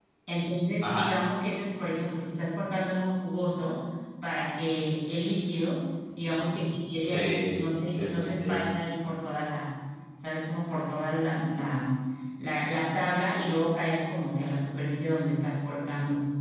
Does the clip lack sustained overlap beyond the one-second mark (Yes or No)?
No